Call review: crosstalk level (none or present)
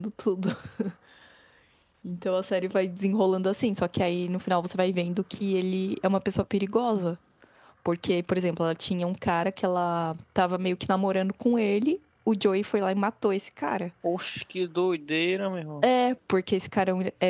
none